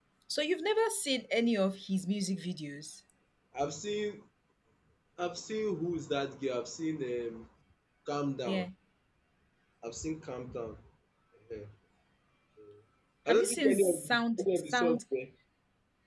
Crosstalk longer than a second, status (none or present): present